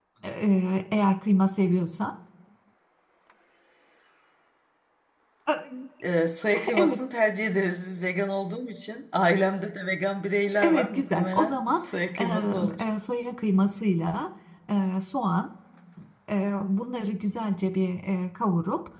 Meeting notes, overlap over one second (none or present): present